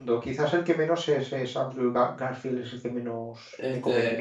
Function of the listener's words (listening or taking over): taking over